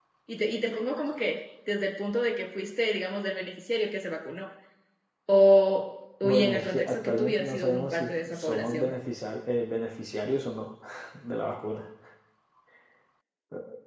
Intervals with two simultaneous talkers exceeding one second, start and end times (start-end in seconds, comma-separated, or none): 6.2-8.9